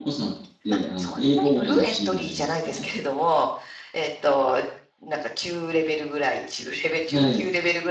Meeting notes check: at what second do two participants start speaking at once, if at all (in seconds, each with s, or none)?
0.7 s